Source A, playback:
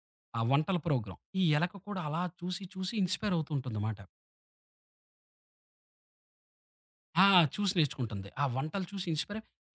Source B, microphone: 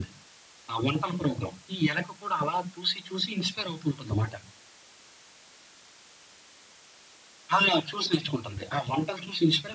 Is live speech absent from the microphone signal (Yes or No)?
Yes